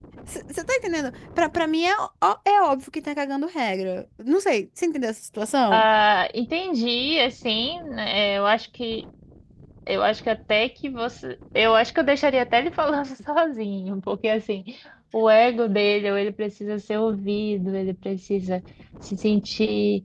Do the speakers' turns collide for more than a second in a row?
No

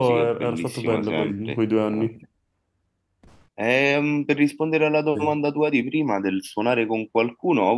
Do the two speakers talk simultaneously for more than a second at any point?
Yes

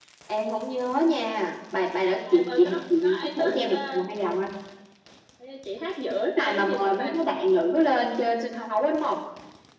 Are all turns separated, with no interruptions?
No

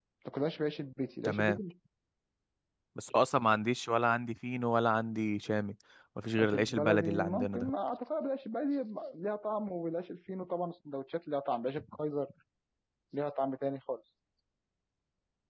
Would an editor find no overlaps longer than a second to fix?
No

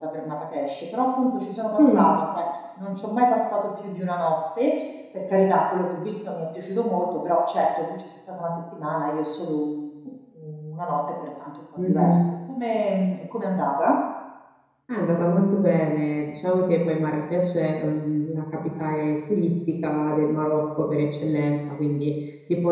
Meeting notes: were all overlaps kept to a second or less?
Yes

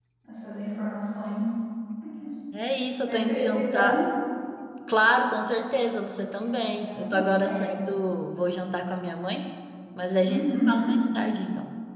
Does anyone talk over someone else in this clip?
Yes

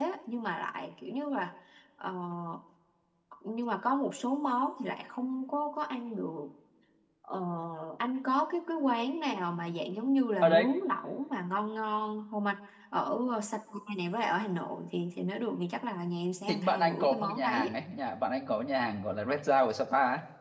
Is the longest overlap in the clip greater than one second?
Yes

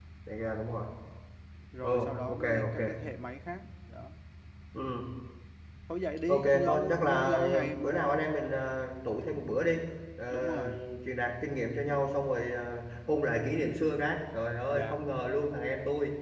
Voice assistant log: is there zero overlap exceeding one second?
No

